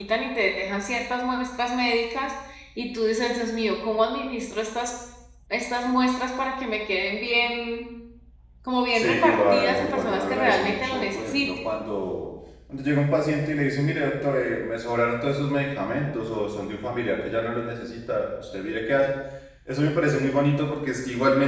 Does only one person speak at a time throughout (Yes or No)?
No